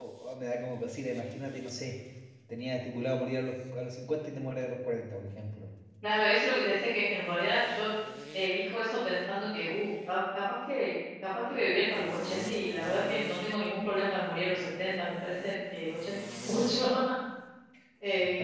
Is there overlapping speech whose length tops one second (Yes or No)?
No